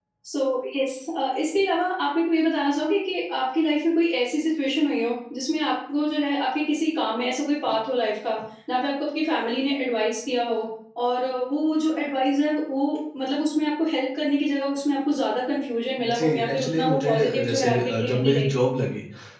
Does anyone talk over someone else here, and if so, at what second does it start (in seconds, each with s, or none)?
16.0 s